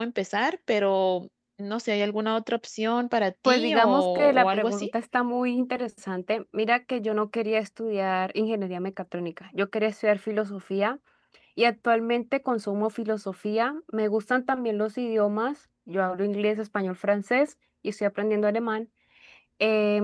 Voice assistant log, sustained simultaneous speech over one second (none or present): present